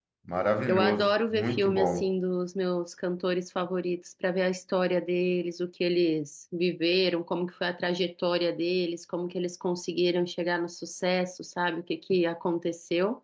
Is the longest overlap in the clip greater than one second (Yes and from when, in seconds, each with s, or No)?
Yes, from 0.7 s